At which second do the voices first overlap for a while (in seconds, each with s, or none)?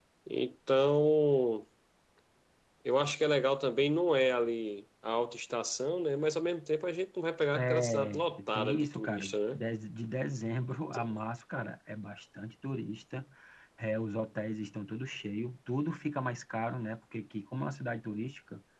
7.6 s